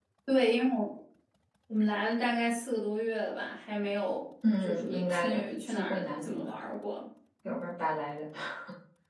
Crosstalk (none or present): present